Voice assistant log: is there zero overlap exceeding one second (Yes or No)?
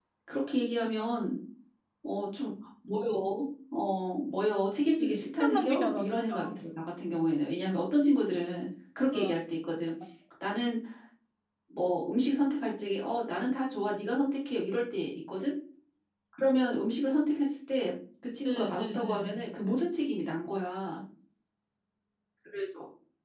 No